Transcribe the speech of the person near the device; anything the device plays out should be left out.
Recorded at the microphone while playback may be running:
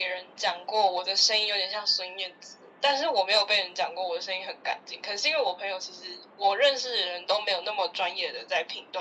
none

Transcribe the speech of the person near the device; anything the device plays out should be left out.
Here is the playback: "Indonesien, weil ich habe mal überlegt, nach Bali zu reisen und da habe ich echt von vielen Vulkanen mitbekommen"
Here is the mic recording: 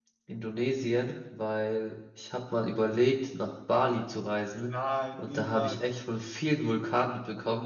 Nein, niemals.

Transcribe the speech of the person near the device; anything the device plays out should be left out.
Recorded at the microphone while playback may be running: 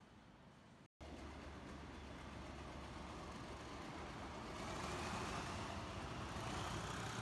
none

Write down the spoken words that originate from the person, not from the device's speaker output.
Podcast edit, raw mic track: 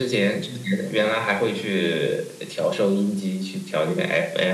none

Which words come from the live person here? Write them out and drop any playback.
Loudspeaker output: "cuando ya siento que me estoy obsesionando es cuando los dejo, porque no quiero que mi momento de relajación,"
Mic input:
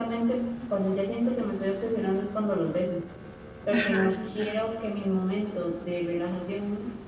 Ajá, ajá. ajá.

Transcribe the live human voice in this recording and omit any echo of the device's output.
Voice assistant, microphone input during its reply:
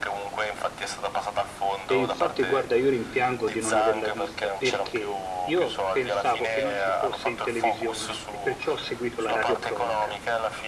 E infatti, guarda, io rimpiango di non averla vista perché io pensavo che non ci fosse in televisione e perciò ho seguito la radiocronaca.

